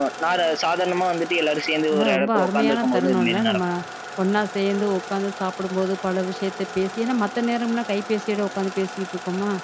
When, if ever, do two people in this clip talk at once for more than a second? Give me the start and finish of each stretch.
1.9-3.6

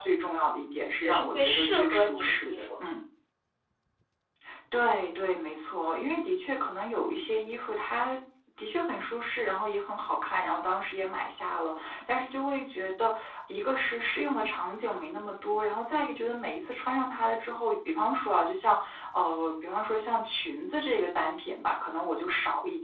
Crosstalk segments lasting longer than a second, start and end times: 1.0-2.8

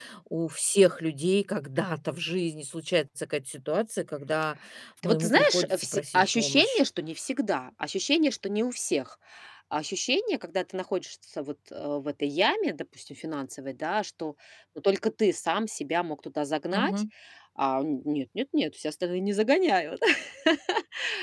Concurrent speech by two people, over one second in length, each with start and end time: 5.0-6.8

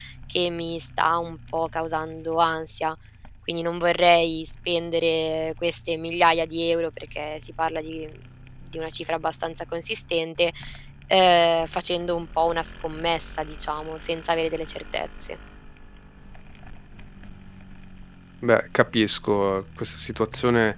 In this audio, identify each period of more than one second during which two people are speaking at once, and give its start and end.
none

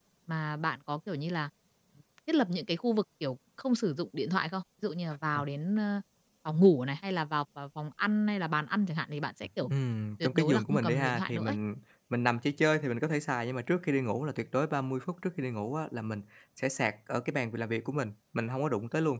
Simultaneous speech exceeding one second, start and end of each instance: 10.2-11.6

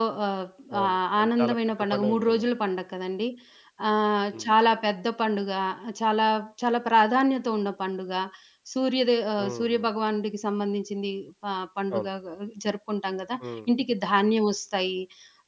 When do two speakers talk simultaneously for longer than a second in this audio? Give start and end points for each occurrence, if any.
0.8-2.5

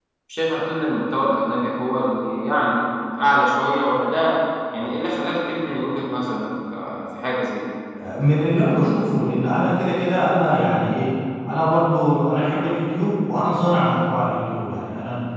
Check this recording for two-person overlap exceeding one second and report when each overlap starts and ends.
none

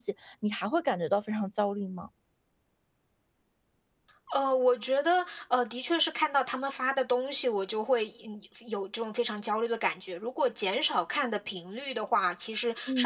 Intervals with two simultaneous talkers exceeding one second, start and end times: none

